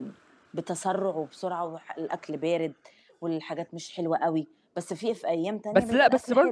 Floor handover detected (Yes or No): Yes